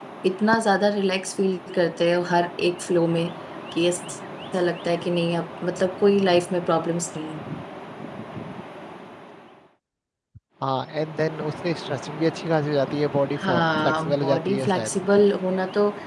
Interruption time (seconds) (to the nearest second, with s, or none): 13 s